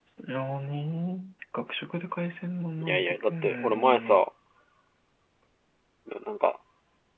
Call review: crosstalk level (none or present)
present